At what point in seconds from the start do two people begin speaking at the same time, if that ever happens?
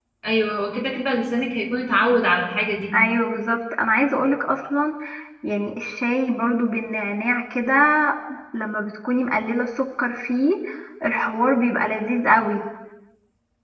none

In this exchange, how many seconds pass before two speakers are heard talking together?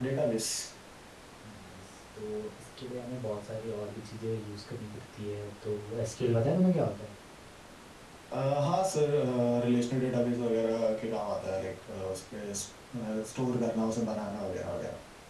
none

